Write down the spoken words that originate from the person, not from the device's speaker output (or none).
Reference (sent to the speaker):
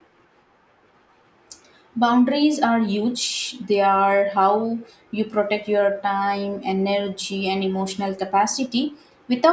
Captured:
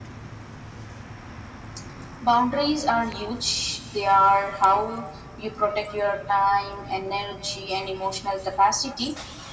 none